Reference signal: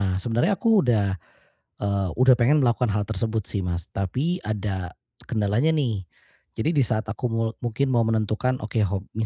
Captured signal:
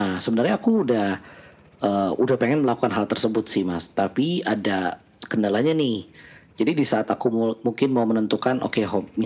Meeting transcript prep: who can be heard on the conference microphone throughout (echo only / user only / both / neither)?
echo only